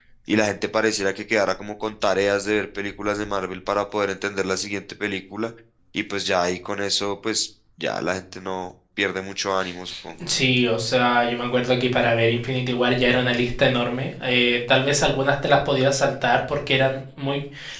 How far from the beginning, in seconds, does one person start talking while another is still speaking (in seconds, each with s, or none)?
none